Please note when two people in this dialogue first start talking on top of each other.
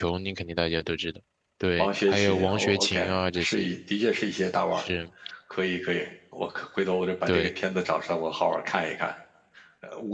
1.8 s

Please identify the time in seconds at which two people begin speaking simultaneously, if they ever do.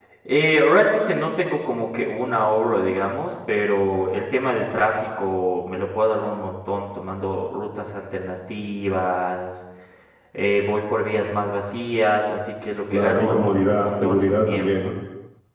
12.9 s

